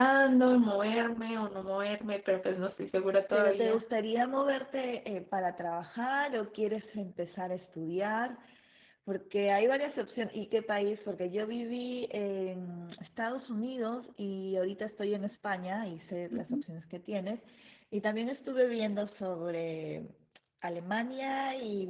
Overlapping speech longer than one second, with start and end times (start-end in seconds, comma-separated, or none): none